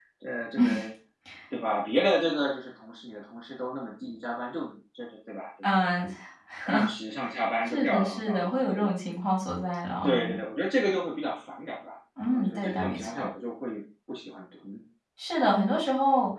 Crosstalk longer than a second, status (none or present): present